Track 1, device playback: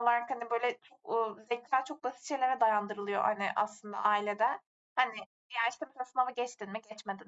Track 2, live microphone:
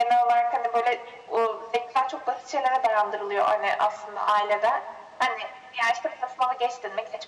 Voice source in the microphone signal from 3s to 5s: echo only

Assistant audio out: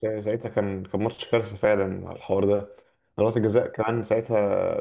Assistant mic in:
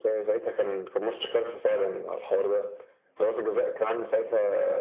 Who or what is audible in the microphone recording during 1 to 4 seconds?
echo only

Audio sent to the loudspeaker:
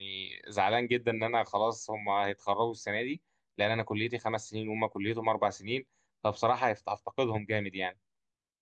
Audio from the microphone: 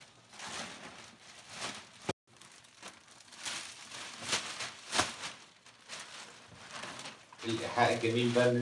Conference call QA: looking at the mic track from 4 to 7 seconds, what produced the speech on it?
neither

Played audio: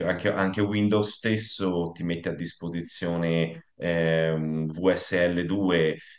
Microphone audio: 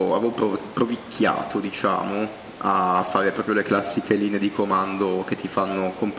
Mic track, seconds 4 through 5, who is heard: user only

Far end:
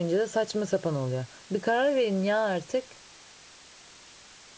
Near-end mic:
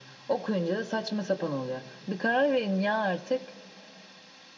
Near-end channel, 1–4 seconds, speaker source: echo only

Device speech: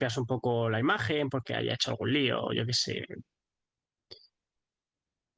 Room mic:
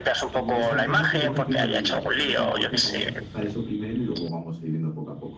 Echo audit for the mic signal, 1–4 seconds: both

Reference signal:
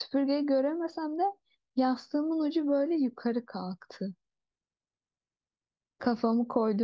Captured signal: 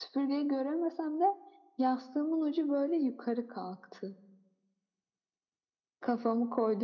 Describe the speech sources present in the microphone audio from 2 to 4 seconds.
echo only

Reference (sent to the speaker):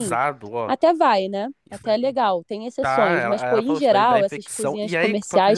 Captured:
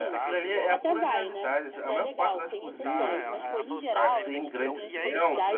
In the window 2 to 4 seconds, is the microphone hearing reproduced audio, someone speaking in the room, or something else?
both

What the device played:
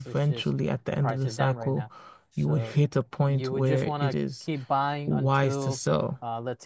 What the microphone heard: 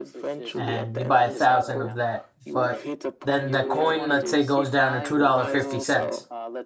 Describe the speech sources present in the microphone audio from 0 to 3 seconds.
both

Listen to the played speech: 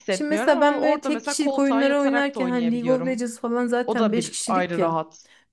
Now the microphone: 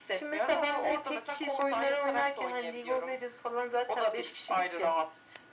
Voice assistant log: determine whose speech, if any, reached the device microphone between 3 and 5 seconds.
echo only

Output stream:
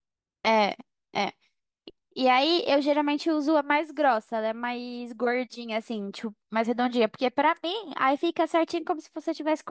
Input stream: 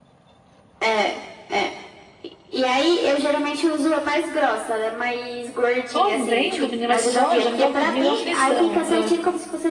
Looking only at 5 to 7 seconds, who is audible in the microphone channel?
both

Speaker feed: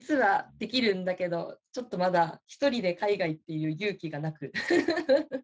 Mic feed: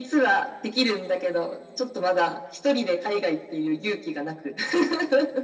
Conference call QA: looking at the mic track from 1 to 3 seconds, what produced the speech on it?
echo only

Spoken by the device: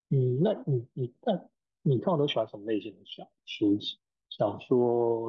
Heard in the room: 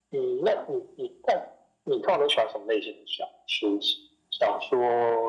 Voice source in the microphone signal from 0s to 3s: echo only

